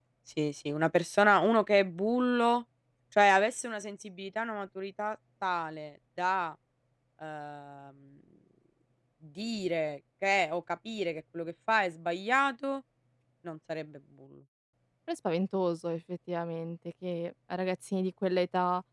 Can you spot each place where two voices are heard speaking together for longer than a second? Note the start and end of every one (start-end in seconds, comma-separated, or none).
none